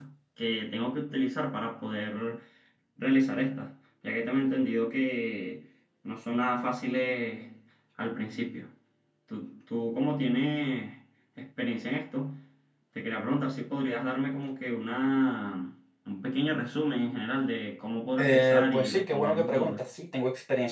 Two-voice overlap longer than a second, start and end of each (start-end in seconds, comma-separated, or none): 18.2-19.8